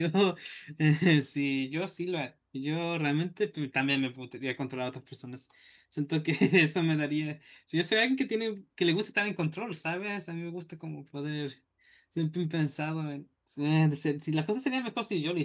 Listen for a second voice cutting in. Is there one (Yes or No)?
No